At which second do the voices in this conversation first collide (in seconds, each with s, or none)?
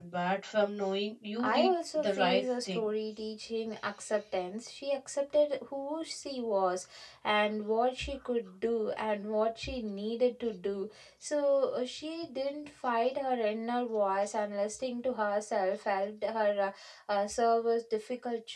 1.4 s